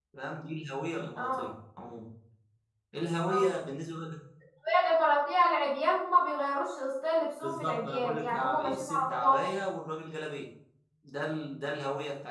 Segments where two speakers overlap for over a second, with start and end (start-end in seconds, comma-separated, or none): 7.4-9.4